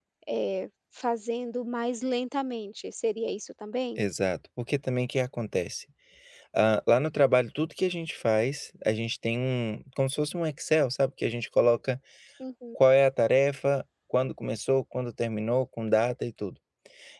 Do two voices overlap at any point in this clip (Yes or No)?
No